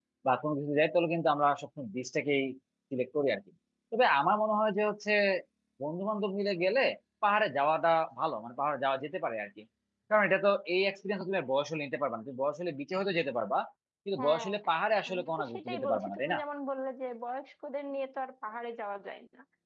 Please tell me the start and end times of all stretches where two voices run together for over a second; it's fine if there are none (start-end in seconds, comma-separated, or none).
15.1-16.4